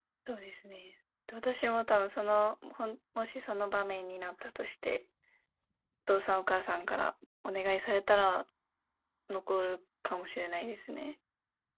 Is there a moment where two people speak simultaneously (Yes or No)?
No